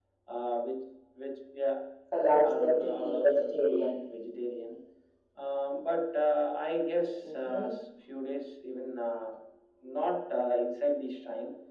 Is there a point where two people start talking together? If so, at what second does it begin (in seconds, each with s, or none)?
2.4 s